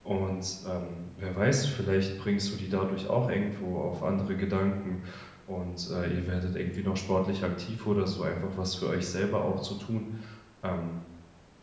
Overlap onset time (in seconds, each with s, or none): none